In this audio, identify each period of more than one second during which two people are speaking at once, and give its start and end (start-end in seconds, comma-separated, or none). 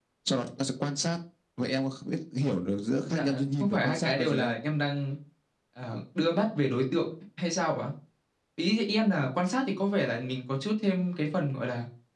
3.0-4.6